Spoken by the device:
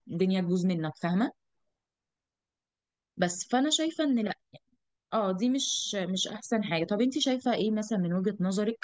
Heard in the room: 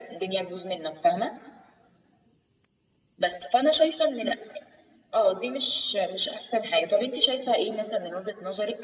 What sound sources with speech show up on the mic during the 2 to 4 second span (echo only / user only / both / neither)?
echo only